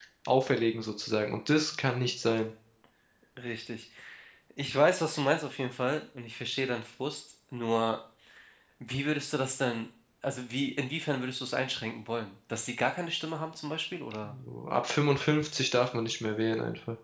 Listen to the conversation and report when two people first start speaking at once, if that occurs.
none

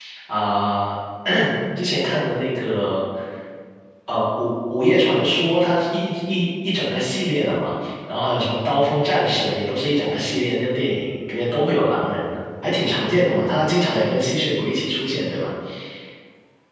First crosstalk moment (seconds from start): none

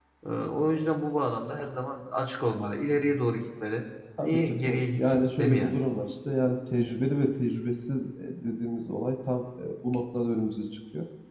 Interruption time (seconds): 4.2 s

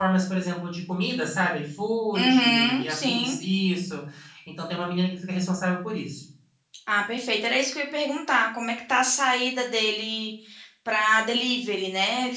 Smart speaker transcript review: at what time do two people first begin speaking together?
2.1 s

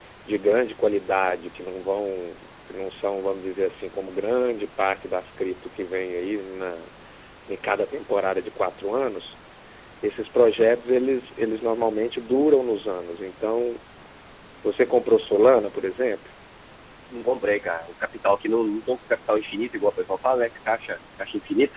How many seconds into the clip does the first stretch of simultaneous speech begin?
none

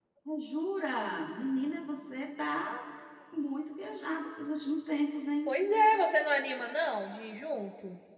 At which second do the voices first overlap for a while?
none

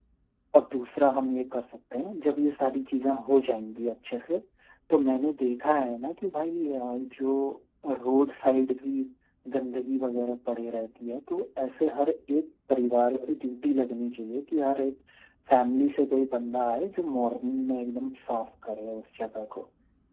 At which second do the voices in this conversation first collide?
none

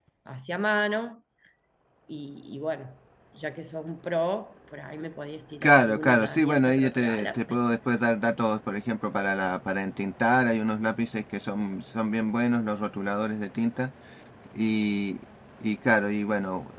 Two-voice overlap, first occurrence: 5.6 s

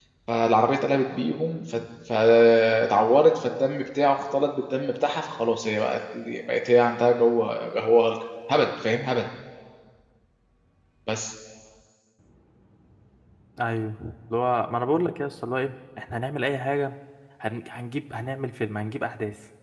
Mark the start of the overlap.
none

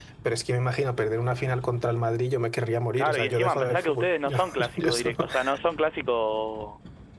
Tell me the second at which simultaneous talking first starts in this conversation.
3.0 s

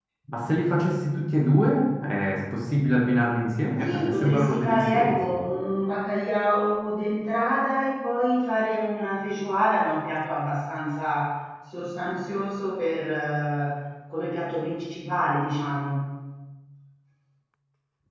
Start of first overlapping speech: 3.8 s

